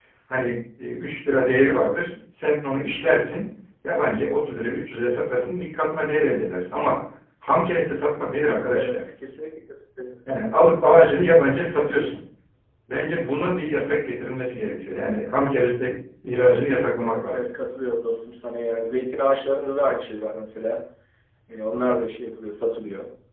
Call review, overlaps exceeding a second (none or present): none